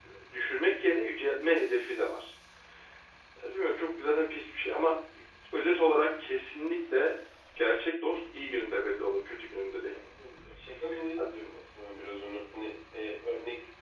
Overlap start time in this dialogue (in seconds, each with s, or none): none